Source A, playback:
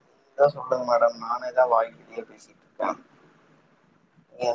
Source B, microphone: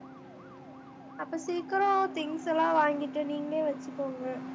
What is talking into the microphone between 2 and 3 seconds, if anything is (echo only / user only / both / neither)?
user only